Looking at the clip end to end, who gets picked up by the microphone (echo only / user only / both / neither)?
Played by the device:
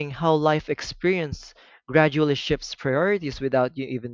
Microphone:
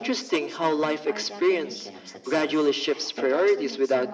both